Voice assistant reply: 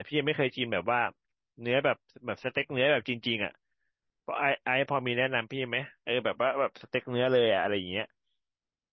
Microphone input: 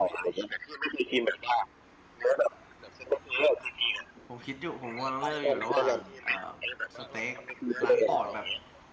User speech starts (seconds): 4.2 s

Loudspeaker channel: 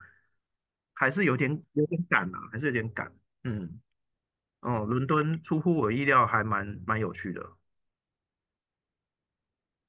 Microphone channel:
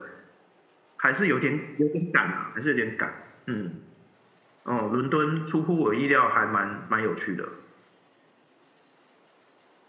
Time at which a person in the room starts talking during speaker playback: none

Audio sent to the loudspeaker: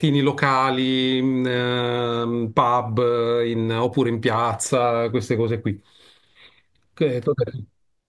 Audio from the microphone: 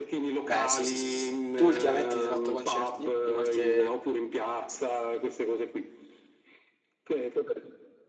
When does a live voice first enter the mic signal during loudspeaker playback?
0.4 s

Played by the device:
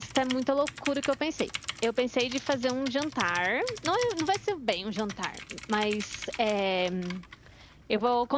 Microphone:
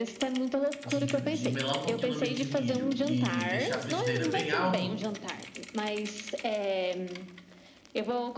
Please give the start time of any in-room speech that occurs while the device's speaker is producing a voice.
0.8 s

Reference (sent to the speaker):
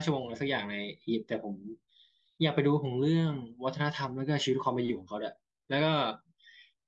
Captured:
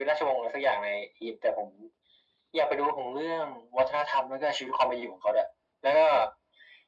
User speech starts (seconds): none

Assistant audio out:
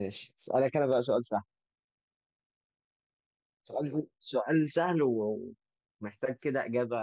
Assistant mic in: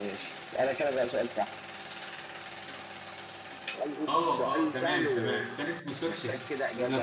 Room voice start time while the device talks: 4.1 s

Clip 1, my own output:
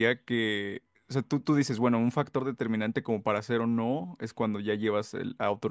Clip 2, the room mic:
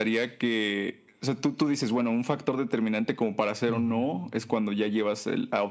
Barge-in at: 3.7 s

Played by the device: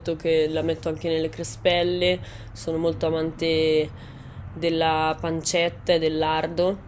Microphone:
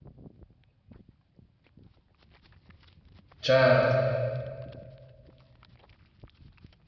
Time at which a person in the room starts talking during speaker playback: 3.4 s

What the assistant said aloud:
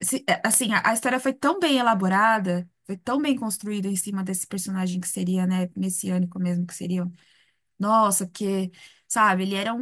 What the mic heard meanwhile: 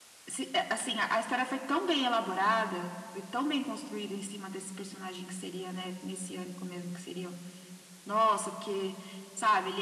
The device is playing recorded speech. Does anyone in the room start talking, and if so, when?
none

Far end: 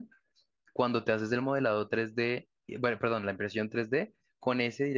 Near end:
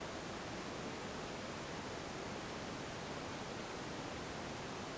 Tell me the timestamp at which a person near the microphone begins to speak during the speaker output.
none

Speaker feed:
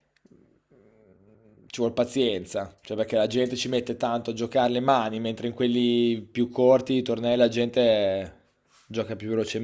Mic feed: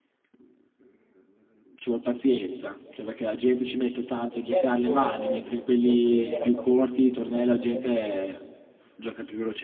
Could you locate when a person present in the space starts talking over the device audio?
4.3 s

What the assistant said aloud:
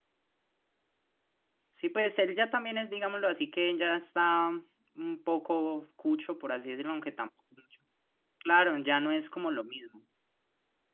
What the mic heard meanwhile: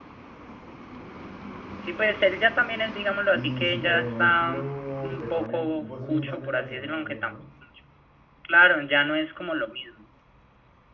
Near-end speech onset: 3.3 s

